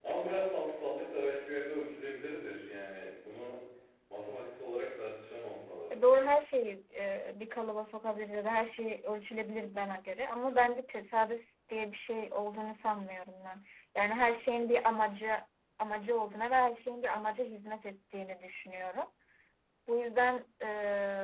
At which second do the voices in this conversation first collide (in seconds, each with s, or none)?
none